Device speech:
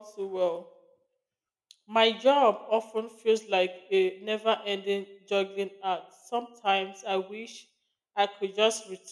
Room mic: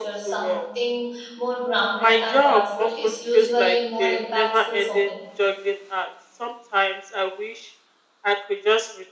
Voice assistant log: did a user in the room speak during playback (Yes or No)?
Yes